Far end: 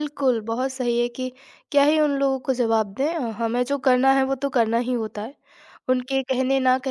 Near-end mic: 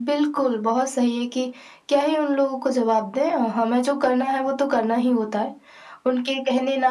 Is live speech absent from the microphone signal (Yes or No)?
Yes